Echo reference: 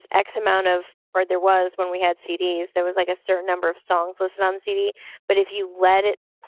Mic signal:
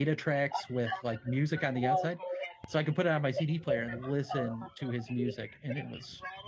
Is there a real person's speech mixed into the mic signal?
Yes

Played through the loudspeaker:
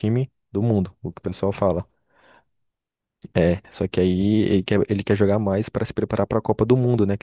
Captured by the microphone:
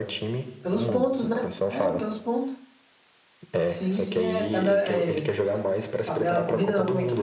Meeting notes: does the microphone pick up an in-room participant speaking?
Yes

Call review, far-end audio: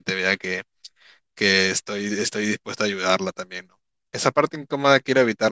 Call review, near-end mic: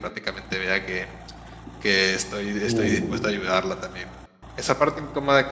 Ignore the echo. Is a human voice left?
Yes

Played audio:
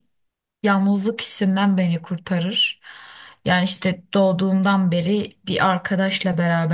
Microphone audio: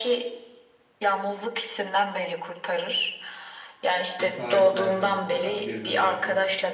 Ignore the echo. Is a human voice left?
Yes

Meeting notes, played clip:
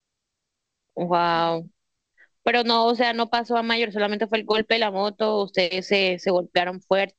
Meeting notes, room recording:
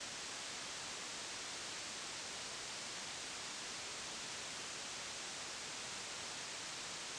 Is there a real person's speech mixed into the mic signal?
No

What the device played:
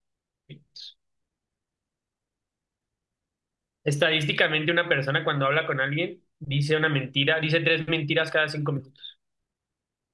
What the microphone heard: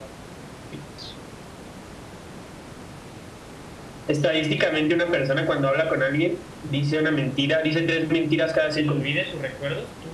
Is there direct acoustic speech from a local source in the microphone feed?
Yes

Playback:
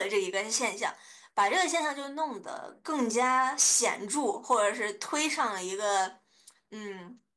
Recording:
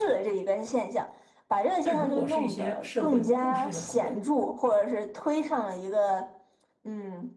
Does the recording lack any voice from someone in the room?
No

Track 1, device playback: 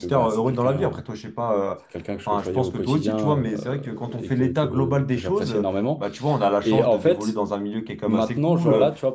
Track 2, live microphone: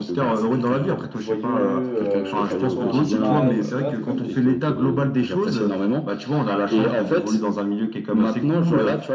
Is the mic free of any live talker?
No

